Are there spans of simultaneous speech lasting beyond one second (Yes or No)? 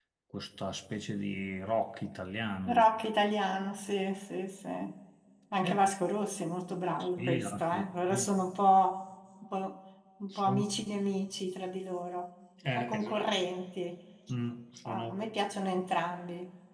Yes